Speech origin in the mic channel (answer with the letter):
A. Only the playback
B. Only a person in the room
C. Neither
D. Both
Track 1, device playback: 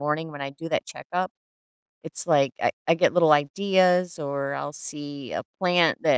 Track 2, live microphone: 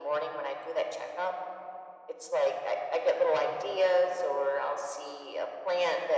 A